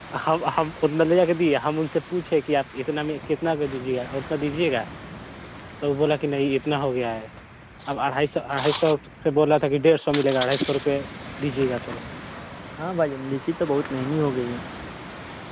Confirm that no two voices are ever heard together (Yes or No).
Yes